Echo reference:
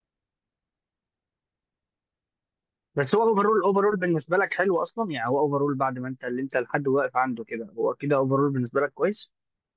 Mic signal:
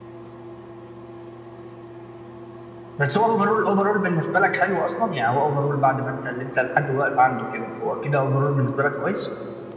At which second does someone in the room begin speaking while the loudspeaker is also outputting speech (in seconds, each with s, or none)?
none